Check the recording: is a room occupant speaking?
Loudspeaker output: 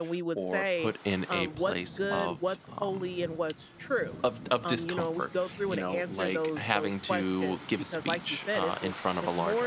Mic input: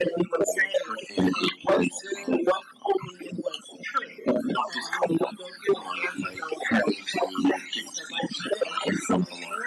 No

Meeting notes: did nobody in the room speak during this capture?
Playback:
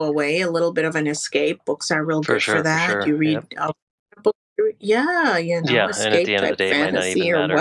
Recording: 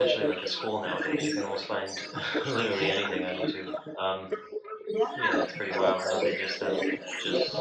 No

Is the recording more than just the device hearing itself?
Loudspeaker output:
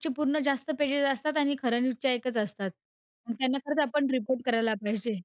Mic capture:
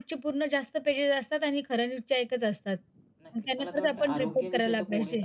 Yes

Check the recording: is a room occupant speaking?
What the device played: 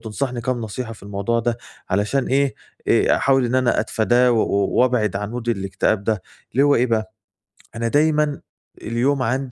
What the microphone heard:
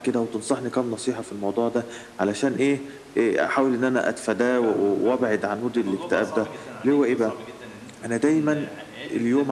Yes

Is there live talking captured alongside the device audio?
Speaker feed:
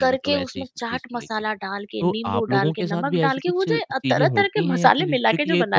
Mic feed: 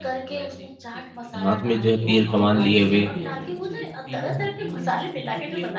Yes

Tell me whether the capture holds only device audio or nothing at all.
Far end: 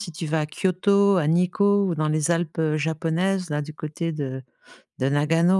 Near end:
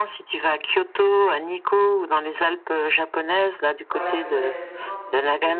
No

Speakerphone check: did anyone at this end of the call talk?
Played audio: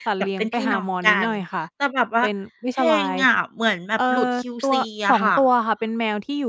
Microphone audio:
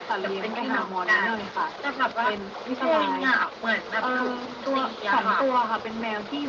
No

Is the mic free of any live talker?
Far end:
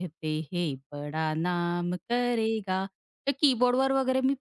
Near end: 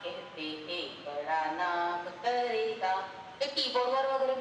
Yes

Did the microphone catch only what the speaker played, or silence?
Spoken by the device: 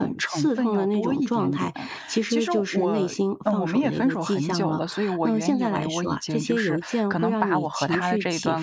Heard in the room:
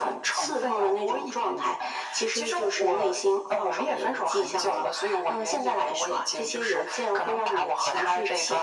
Yes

